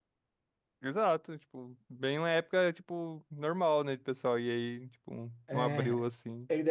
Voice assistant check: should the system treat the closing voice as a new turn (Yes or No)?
Yes